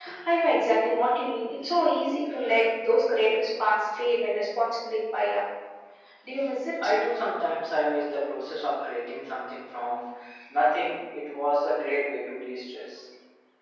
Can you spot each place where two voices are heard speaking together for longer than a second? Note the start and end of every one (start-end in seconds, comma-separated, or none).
none